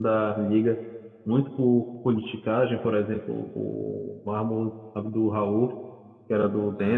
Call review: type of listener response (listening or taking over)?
listening